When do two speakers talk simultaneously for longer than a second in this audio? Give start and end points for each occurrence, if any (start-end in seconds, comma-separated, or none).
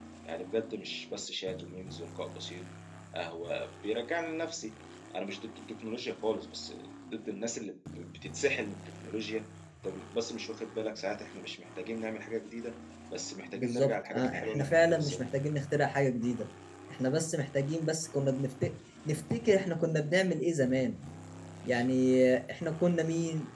13.6-15.2